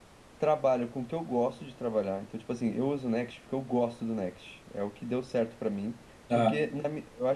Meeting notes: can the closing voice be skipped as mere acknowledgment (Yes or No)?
Yes